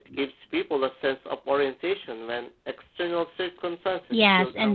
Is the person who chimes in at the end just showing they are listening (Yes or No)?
No